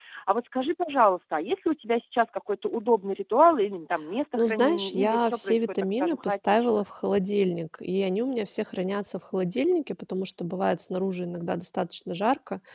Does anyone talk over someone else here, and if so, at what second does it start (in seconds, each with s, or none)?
4.3 s